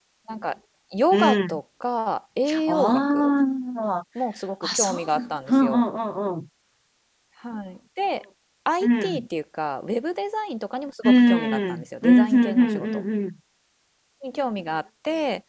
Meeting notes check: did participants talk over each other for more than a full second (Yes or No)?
Yes